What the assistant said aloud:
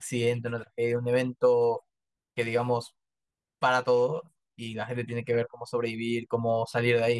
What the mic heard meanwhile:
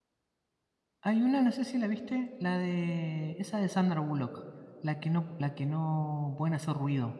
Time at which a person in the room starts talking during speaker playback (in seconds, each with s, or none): 1.0 s